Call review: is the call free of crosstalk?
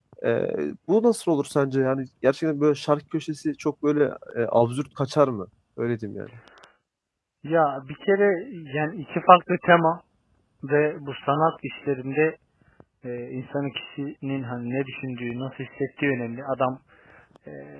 Yes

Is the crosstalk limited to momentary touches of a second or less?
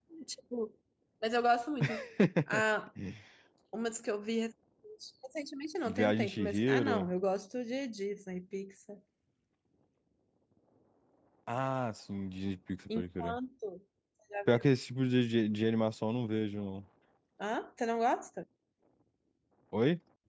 No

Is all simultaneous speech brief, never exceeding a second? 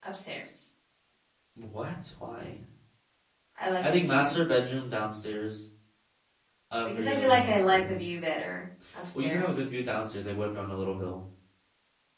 No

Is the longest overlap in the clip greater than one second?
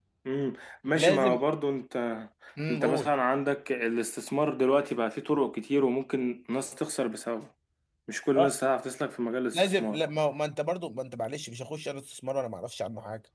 No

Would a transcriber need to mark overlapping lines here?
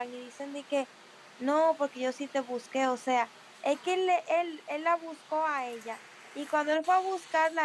No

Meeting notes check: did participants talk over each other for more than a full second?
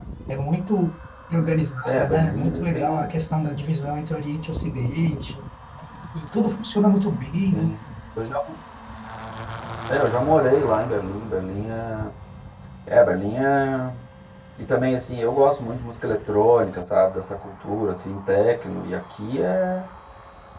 Yes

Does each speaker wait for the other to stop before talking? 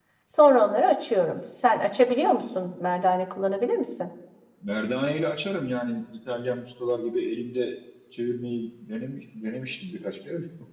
Yes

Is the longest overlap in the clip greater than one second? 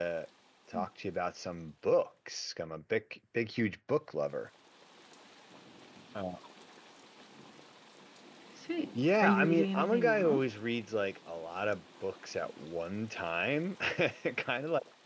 Yes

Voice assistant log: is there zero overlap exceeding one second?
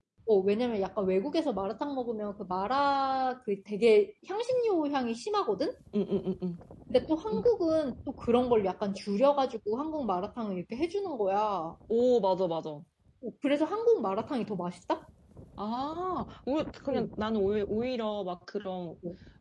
Yes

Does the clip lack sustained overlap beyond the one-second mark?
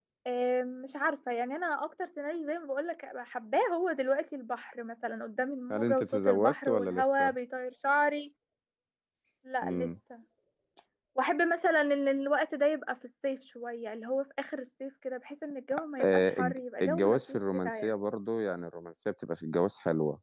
No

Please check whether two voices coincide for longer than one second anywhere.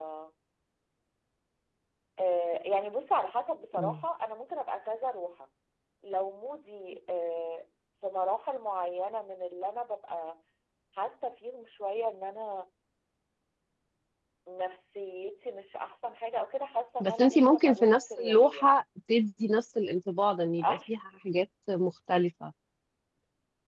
Yes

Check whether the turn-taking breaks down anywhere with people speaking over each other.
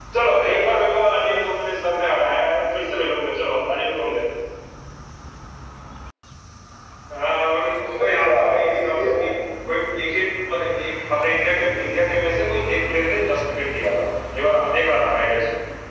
Yes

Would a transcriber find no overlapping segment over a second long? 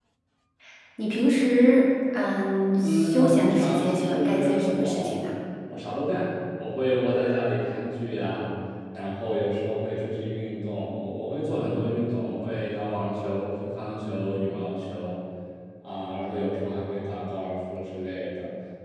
No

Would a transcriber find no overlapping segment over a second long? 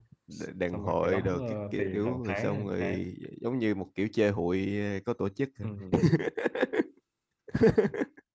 No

